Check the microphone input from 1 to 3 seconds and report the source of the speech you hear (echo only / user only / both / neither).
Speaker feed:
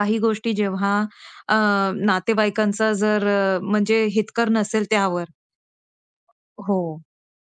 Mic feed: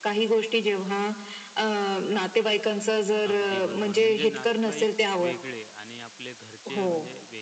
echo only